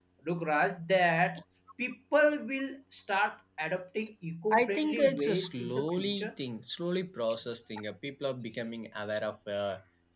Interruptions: present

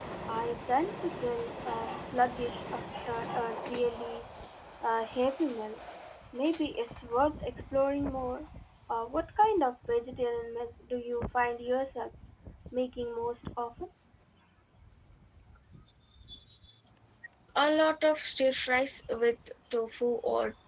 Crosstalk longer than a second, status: none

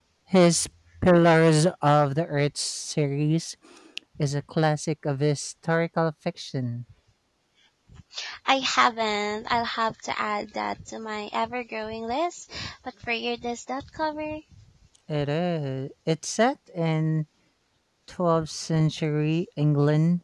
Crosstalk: none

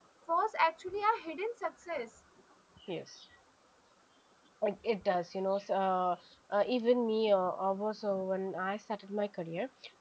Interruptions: none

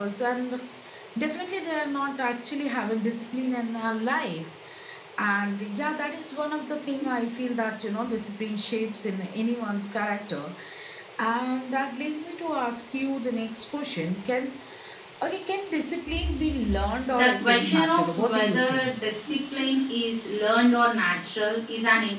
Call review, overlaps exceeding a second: present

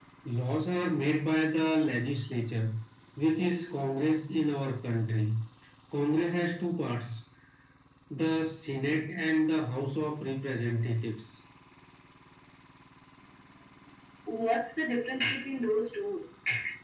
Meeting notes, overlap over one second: none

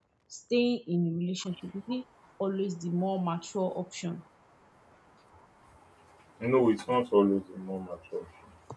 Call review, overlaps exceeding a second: none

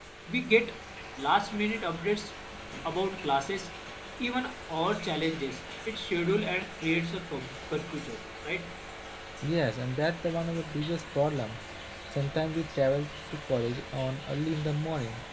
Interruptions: none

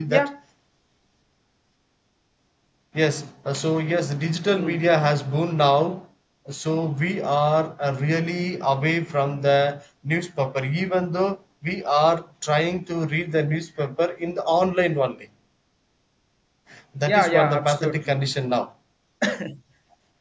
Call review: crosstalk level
present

